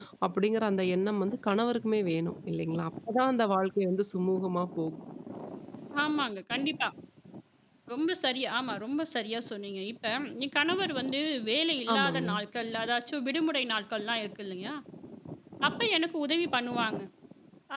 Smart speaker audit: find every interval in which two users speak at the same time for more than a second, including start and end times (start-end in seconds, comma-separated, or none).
none